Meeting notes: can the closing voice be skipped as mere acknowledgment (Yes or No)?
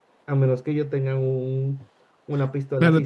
No